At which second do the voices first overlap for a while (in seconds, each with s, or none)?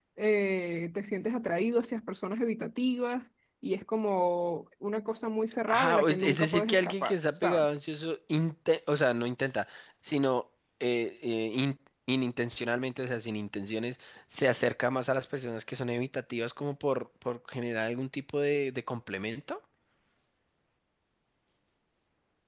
5.7 s